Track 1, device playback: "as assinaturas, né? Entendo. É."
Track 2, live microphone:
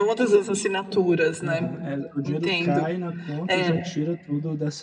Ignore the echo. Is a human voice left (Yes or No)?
Yes